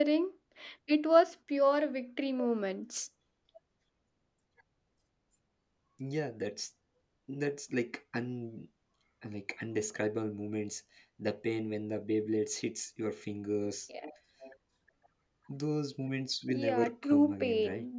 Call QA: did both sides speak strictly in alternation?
No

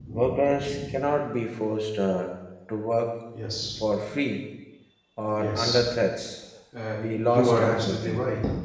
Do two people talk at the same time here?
Yes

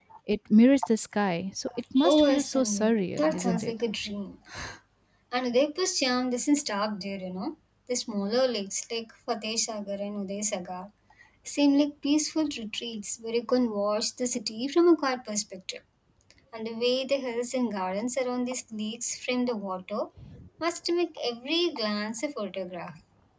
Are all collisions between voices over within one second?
No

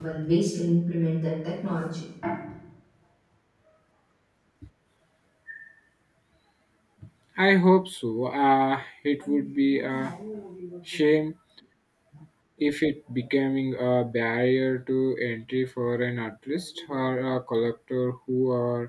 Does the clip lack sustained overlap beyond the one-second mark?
Yes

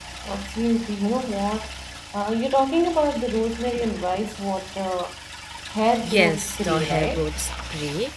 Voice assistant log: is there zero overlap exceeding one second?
No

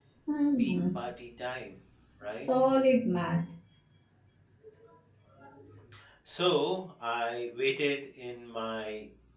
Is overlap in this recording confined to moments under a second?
Yes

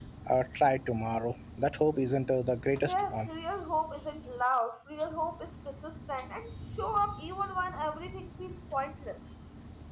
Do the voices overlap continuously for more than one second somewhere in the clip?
No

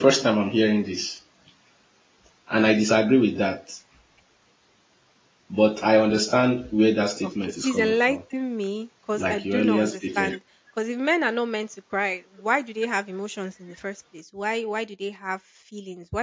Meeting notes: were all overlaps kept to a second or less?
No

